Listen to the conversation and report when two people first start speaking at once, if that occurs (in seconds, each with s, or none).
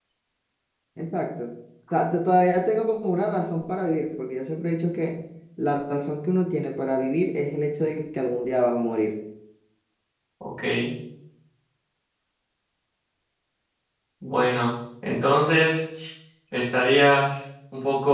none